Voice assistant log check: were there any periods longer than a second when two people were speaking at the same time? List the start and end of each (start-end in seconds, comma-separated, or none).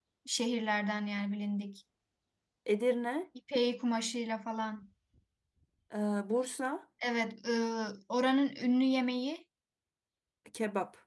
none